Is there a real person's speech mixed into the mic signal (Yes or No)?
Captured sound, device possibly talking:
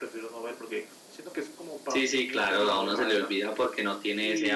No